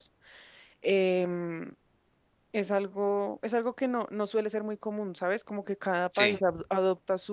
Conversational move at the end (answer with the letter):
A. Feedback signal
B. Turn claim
A